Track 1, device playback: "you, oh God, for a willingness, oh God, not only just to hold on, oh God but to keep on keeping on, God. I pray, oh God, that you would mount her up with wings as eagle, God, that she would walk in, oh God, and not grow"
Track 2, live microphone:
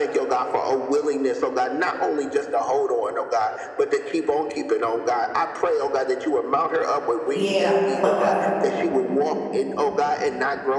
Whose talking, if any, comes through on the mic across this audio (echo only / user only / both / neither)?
both